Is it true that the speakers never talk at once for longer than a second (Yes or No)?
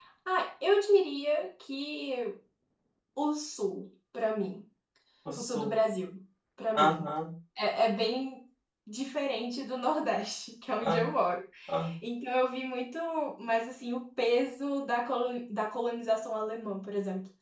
Yes